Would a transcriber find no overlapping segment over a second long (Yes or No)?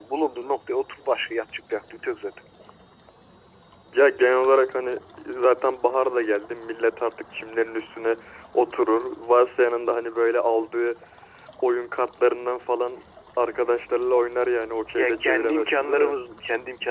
No